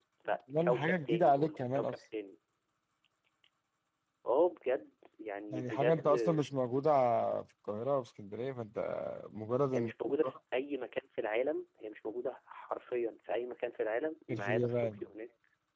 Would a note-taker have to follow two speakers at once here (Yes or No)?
Yes